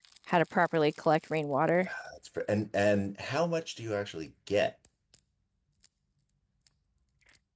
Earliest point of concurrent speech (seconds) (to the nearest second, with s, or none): none